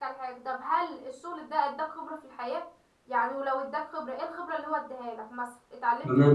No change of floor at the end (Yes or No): No